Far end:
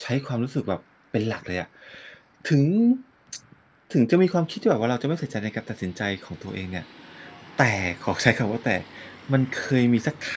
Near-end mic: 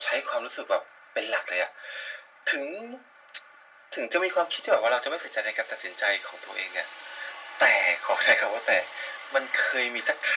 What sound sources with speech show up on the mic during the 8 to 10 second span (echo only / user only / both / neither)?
echo only